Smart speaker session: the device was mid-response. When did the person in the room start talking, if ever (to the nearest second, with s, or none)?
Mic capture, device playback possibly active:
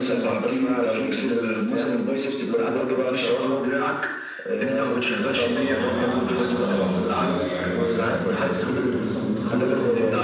5 s